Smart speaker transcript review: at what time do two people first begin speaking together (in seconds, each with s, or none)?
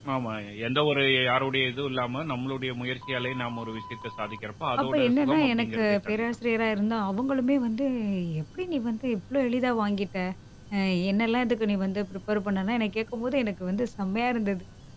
4.8 s